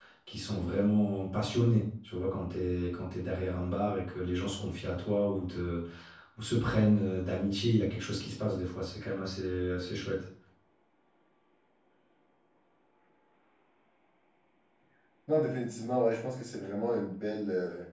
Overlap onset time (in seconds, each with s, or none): none